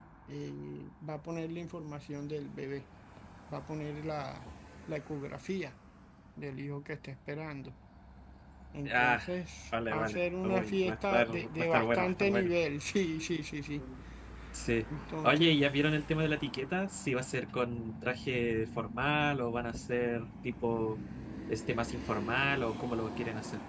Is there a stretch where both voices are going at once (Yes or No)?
Yes